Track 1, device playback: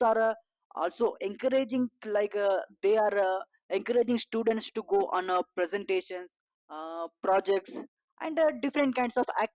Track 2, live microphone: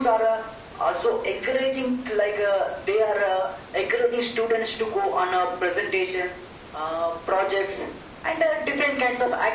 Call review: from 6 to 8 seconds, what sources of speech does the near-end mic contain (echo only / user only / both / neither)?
echo only